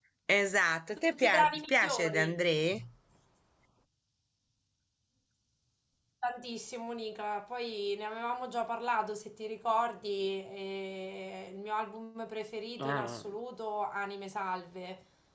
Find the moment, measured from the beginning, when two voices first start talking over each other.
1.1 s

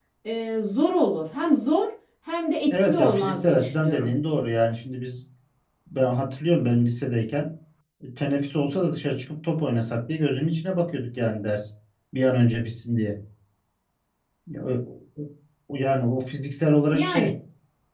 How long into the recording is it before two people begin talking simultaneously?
2.7 s

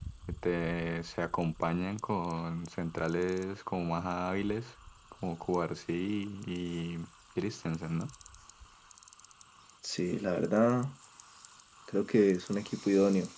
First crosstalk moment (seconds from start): none

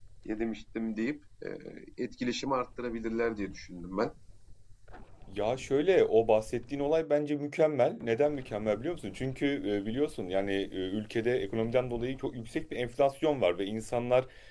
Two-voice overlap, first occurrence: none

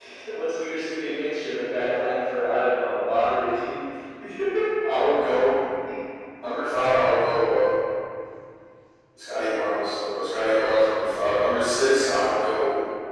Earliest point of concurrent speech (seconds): none

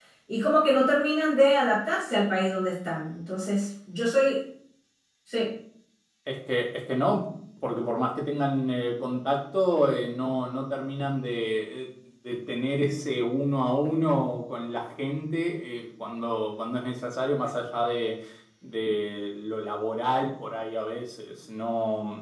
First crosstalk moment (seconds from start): none

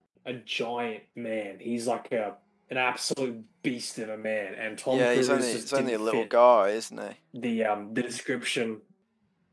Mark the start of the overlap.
4.9 s

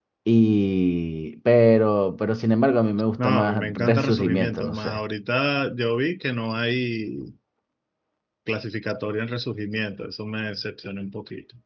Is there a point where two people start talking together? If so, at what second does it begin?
3.2 s

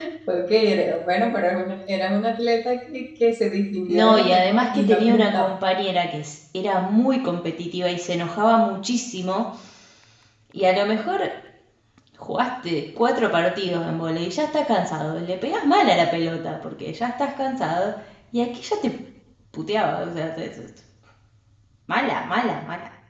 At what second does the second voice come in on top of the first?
3.9 s

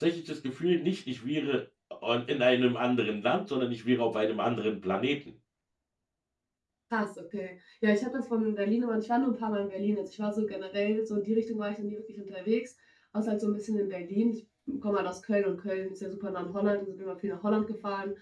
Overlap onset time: none

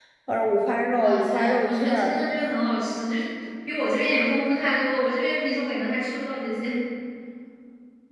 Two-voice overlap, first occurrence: 1.0 s

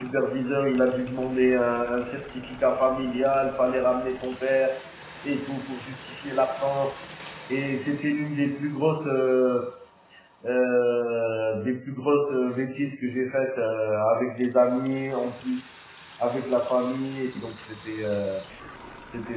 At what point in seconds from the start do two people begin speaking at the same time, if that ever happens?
none

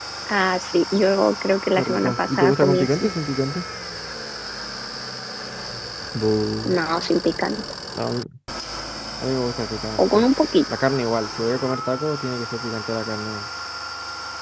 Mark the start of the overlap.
1.7 s

